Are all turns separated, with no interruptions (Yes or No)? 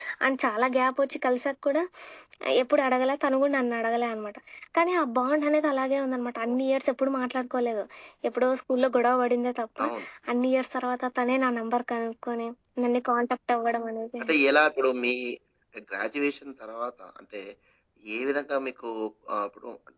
Yes